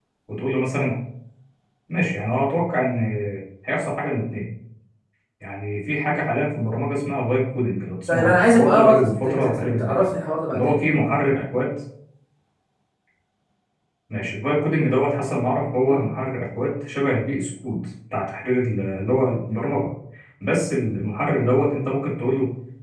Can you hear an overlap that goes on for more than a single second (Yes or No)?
Yes